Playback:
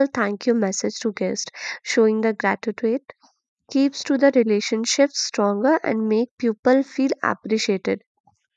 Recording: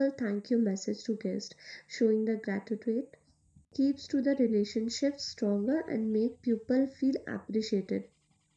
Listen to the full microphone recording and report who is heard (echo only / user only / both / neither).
echo only